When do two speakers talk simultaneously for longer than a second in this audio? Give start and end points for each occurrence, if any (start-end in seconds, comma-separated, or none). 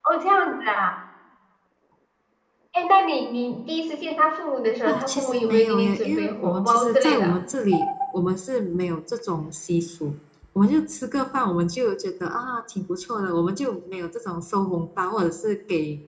4.8-7.4